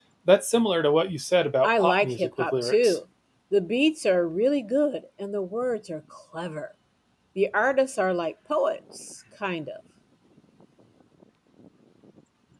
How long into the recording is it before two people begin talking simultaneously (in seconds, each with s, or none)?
1.6 s